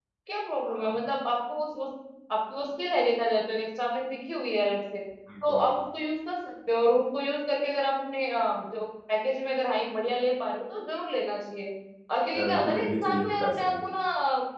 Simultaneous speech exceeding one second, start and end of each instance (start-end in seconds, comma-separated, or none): 12.3-13.7